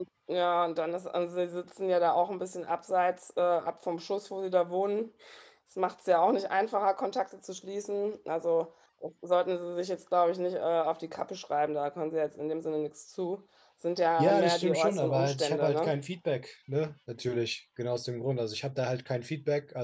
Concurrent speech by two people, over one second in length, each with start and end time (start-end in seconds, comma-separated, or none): 14.2-15.9